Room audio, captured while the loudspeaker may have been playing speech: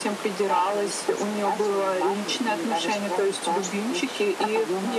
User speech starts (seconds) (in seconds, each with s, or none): none